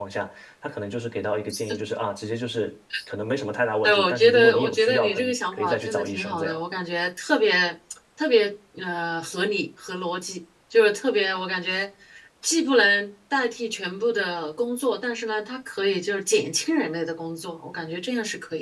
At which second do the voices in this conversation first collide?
4 s

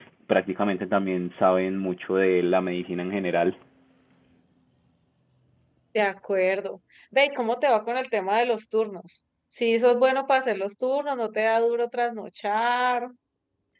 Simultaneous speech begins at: none

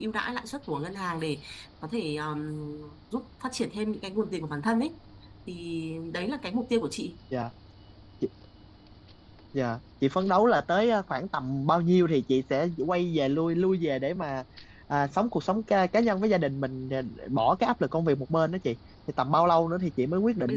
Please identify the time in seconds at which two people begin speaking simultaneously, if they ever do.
none

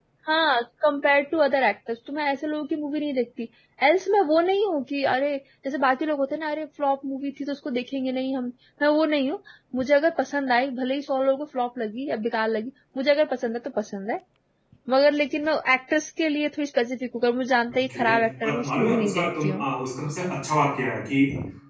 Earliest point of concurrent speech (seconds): 18 s

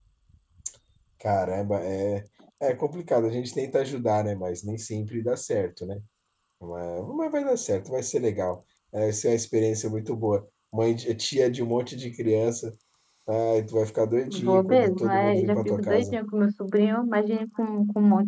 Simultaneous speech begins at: 14 s

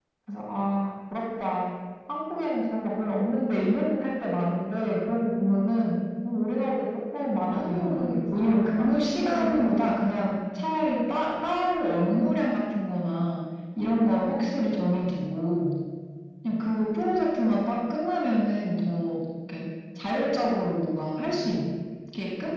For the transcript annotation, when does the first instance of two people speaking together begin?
8 s

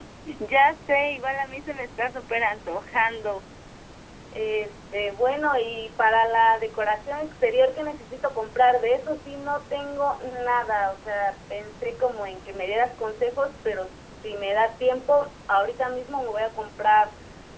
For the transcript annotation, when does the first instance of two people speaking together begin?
none

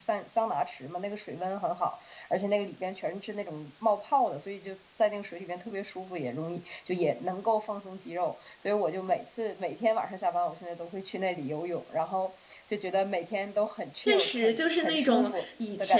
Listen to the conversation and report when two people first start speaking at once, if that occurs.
14 s

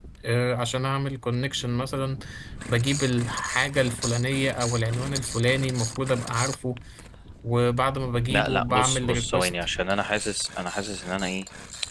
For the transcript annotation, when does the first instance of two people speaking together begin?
8 s

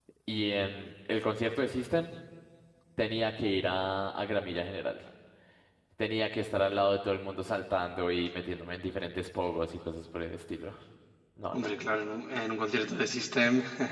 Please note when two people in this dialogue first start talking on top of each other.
none

